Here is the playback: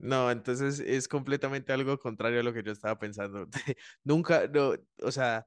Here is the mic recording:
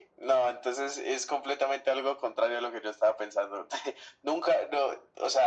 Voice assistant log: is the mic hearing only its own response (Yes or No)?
Yes